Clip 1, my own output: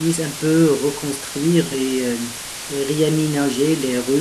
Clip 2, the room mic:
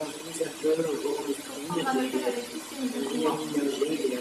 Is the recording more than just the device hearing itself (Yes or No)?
Yes